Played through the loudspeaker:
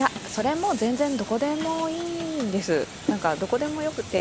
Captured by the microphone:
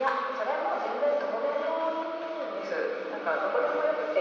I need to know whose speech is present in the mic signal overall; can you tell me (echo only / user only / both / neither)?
echo only